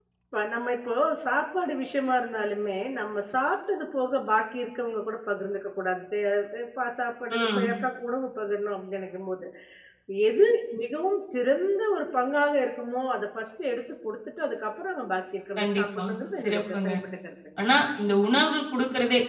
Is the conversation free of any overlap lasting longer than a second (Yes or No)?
No